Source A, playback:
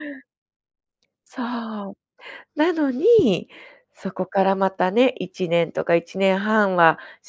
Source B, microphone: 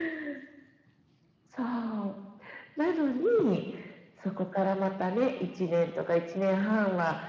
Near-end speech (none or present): none